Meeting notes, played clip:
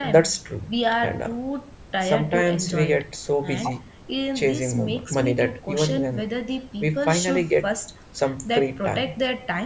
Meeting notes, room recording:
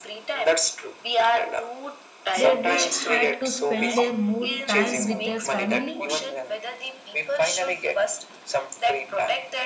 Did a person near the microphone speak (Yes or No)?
Yes